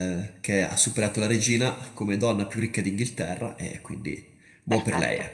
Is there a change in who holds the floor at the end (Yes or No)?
Yes